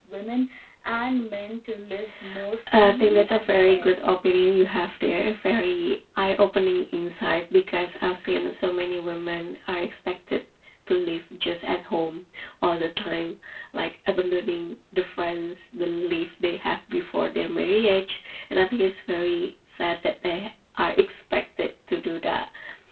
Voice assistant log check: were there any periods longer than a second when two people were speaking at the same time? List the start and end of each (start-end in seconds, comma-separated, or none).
2.7-4.1